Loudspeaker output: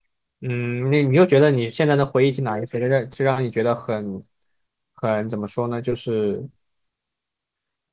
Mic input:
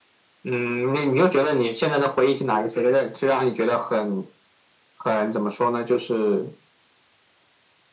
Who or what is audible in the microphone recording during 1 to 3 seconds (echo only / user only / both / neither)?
echo only